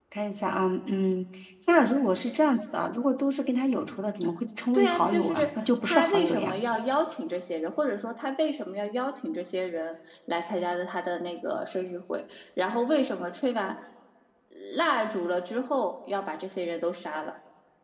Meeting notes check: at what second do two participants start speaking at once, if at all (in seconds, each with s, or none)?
4.7 s